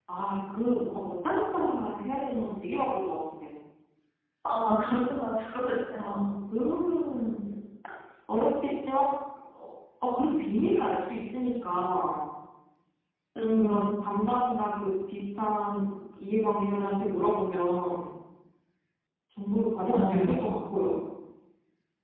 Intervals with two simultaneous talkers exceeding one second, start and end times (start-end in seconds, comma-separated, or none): none